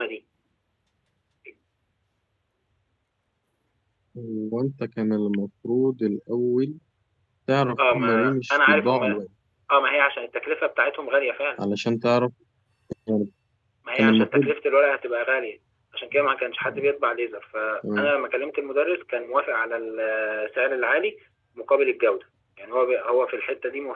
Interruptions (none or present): present